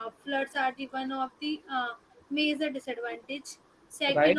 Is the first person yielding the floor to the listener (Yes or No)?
Yes